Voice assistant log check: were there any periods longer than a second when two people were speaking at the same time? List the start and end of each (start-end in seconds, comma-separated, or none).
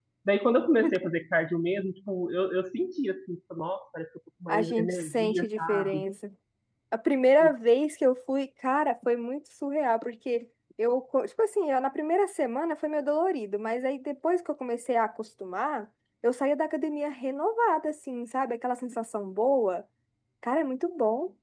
4.5-6.0